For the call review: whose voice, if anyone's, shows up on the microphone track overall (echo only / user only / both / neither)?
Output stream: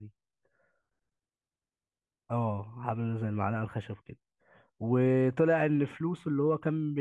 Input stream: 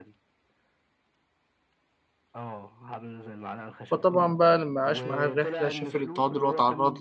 both